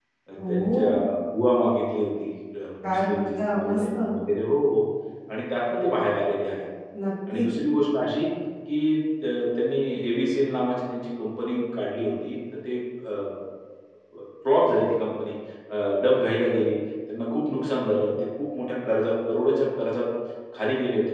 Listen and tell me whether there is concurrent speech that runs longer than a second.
Yes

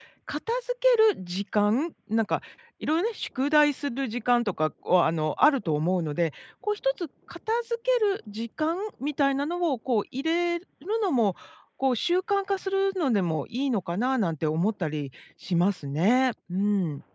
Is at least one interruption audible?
No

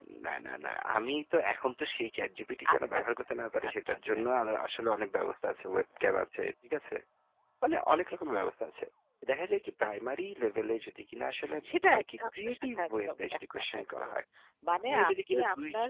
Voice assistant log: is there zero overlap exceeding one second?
No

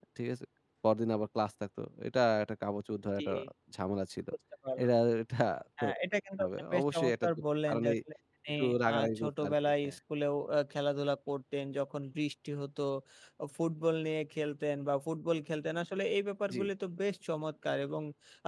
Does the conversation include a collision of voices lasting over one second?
Yes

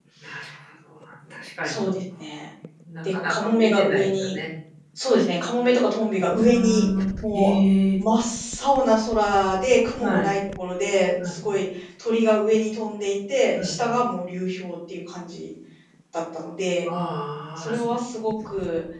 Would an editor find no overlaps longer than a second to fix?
No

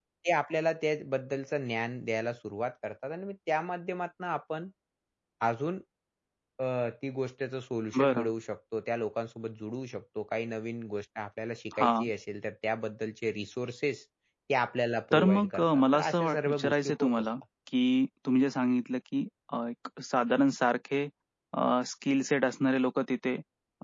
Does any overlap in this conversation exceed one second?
Yes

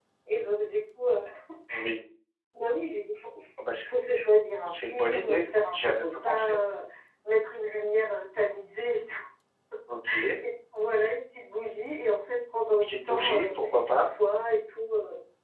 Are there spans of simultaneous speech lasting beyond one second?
Yes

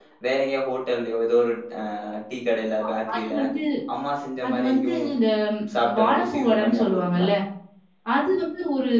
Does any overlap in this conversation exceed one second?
Yes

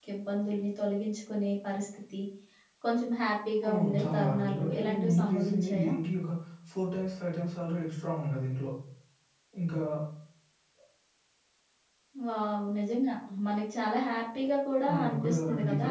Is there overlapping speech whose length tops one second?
Yes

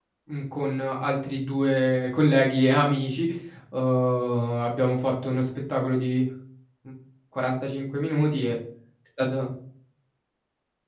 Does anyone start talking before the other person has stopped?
No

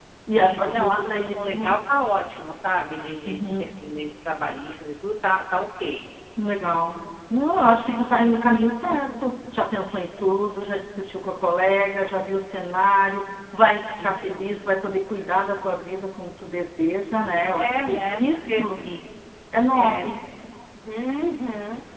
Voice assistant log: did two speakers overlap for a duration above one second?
Yes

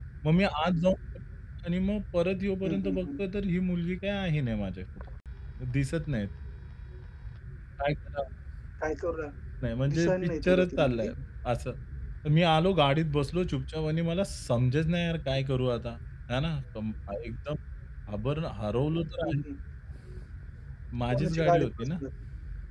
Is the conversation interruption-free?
No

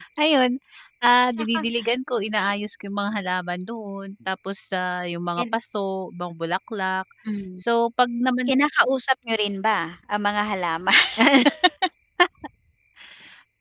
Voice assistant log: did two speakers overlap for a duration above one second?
No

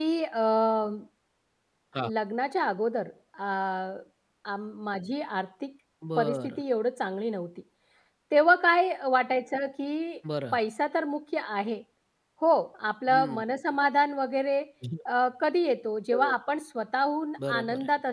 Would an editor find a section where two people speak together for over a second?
No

